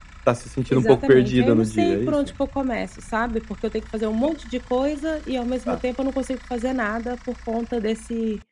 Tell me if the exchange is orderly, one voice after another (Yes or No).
No